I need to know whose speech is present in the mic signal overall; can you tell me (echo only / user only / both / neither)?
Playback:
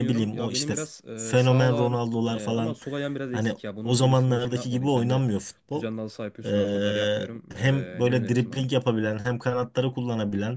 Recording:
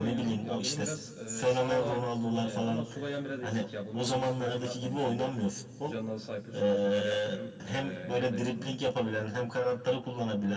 echo only